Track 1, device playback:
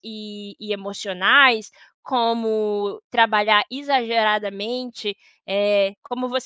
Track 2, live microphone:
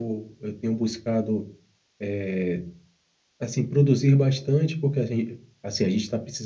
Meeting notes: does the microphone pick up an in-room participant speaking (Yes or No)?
Yes